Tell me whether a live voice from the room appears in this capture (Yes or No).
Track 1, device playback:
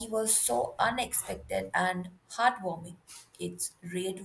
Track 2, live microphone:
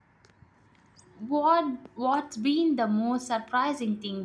Yes